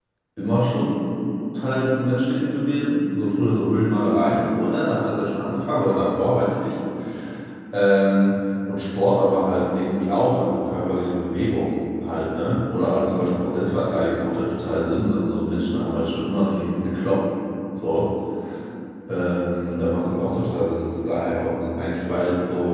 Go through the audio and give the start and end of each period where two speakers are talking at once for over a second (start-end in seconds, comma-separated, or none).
none